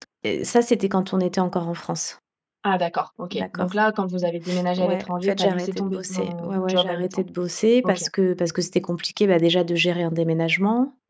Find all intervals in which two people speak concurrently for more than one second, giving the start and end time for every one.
4.8-7.2

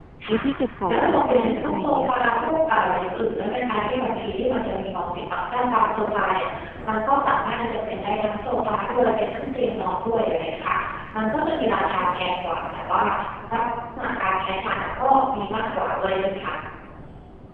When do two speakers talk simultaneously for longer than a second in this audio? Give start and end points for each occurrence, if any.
0.9-2.3

